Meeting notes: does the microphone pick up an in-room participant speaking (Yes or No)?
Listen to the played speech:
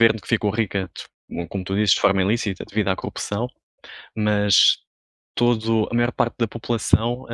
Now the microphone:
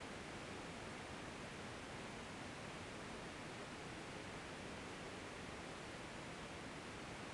No